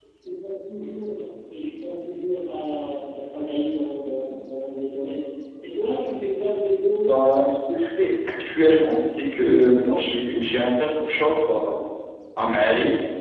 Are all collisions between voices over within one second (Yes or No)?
Yes